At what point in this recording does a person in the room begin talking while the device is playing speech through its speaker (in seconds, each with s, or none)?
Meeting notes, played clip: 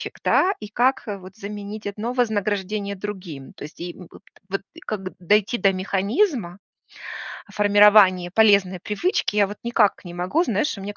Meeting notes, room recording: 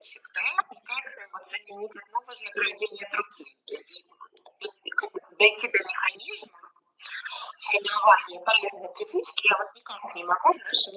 none